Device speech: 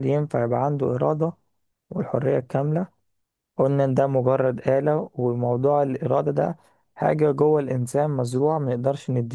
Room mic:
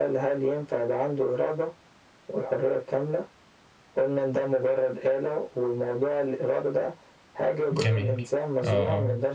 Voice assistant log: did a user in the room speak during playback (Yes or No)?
Yes